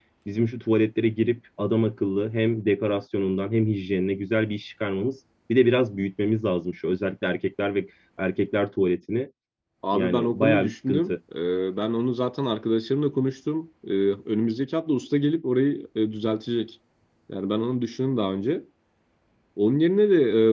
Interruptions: present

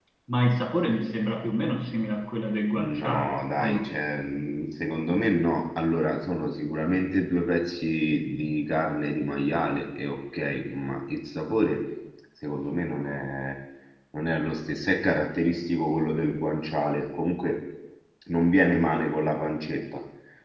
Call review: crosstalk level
present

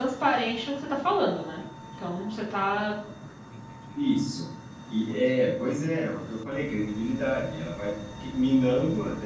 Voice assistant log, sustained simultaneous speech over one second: none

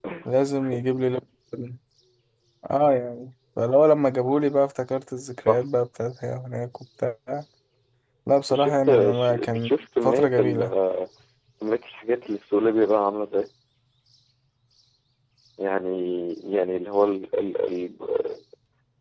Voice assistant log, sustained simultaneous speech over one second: present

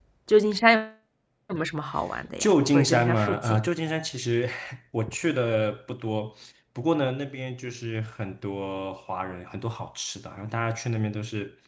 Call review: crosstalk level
present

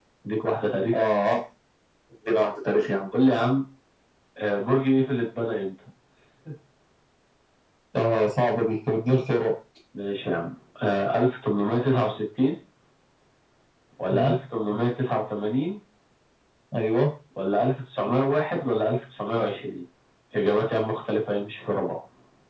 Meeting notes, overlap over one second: none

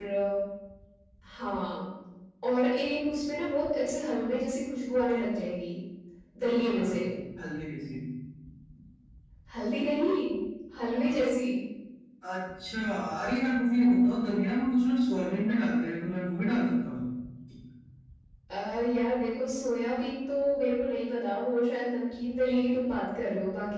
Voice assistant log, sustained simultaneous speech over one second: none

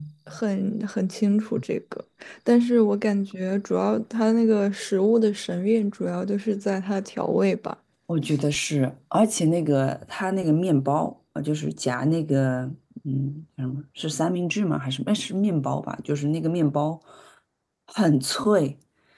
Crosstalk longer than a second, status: none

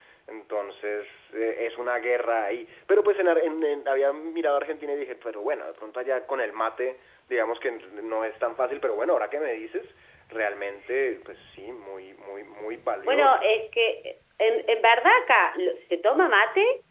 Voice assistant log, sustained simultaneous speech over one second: none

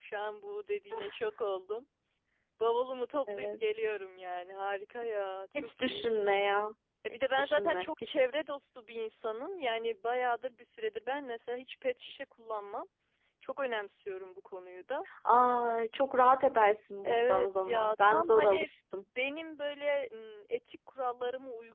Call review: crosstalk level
present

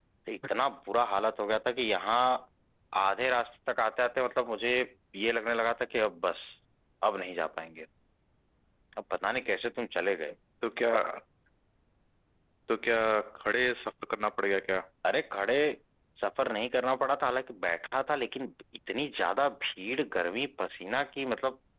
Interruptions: none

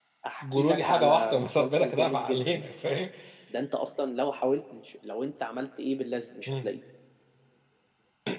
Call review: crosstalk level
present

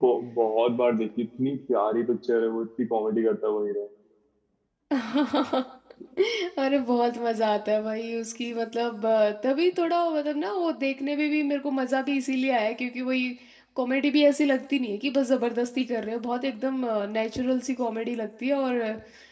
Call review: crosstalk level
none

